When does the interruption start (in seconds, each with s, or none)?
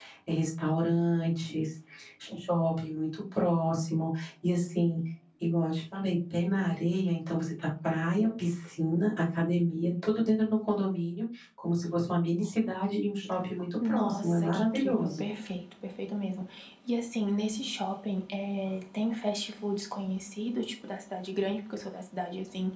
13.8 s